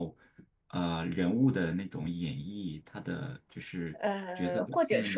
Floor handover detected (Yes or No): Yes